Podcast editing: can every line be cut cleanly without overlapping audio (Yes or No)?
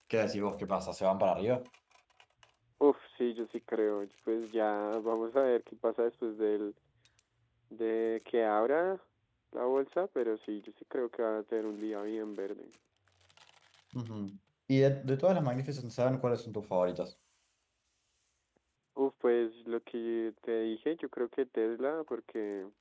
Yes